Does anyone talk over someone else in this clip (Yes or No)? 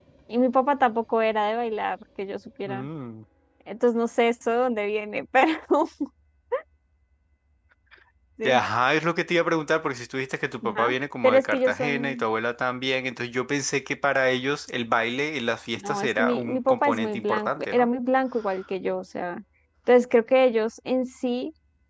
Yes